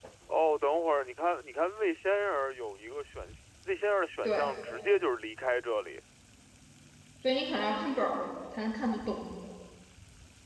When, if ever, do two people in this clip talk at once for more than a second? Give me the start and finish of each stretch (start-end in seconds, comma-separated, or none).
none